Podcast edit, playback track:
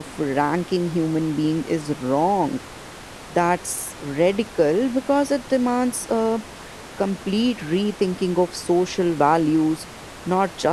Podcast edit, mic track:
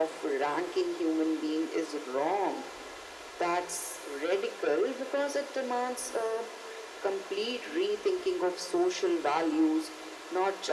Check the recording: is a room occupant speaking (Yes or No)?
No